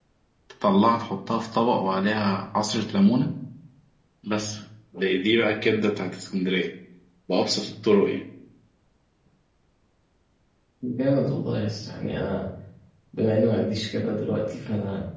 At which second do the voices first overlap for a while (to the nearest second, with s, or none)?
none